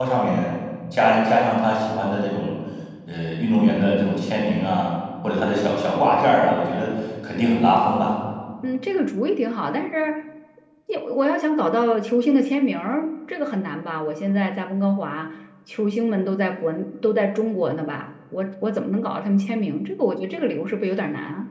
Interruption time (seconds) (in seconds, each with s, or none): none